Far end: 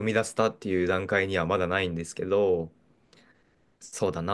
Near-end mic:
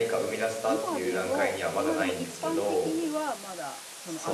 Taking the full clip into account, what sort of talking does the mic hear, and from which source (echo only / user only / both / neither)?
both